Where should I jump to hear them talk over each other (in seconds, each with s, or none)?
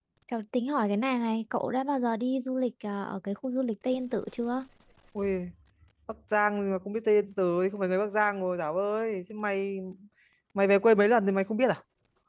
none